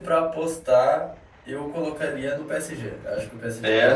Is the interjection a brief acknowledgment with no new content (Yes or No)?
Yes